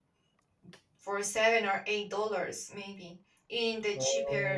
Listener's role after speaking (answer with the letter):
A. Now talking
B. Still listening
B